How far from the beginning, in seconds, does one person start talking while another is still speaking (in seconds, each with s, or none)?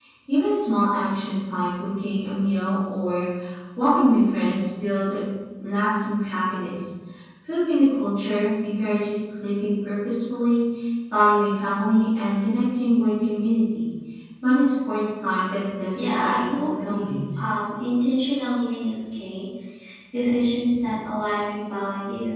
15.9 s